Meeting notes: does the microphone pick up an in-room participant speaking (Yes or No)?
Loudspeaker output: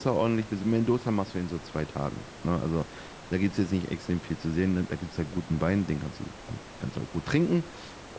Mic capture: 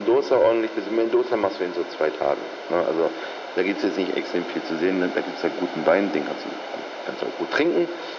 No